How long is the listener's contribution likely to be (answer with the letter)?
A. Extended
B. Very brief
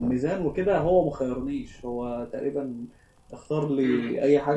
A